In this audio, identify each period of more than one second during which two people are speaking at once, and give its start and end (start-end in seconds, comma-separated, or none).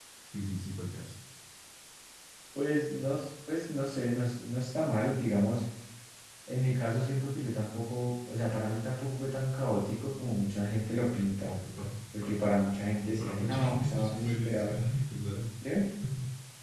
13.2-14.8